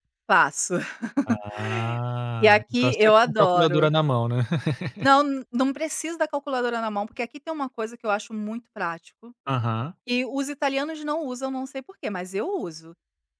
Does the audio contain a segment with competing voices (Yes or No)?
Yes